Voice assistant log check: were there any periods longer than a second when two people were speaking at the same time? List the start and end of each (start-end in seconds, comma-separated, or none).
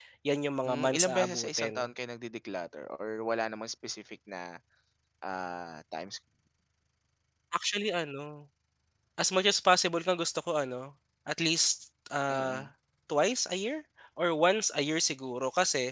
0.7-1.9